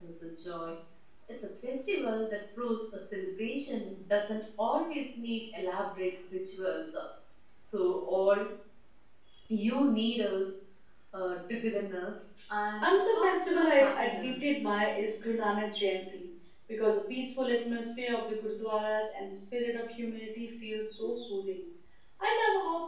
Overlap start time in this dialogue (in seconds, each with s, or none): 12.8 s